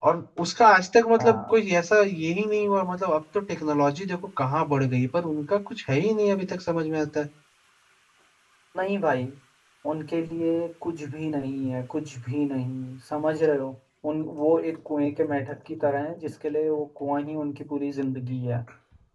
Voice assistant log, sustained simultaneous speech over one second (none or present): none